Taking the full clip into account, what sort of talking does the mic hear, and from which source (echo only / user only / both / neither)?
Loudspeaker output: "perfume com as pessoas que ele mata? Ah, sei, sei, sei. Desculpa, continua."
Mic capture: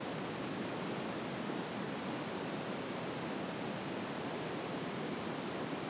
neither